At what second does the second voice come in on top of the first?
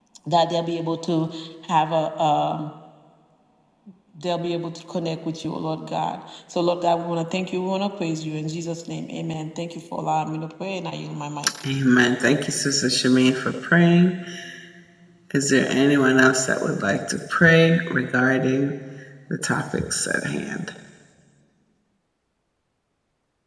none

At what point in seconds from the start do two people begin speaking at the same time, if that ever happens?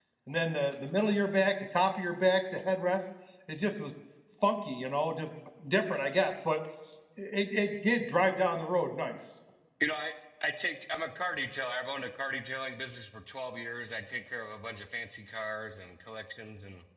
none

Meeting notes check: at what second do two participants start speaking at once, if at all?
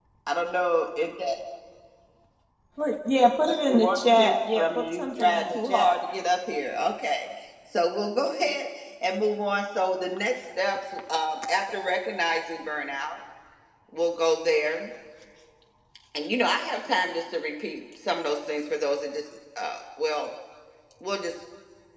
3.5 s

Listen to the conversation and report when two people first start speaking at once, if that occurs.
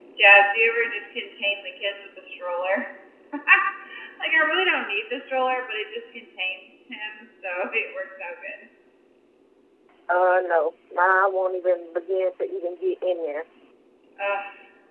none

